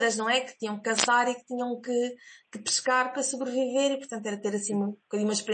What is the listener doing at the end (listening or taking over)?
listening